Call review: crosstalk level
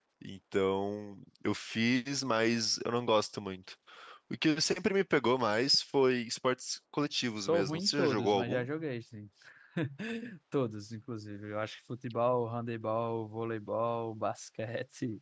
present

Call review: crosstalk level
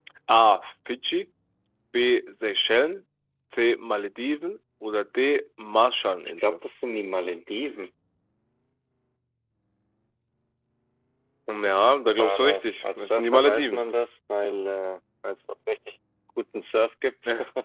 present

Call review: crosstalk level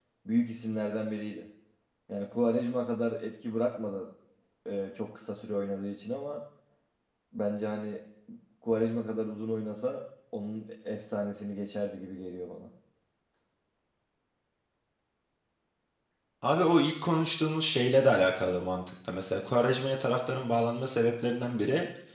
none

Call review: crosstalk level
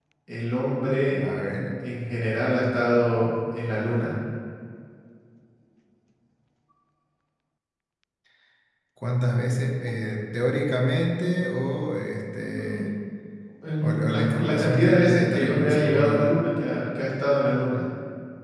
present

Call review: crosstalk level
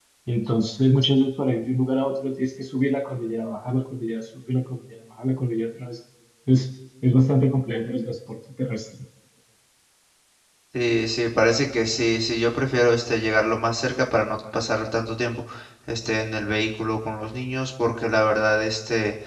none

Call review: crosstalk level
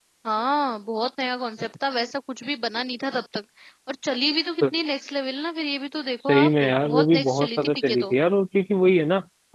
present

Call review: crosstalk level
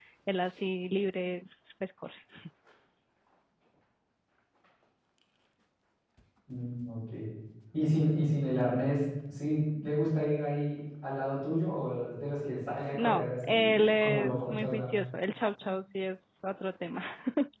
present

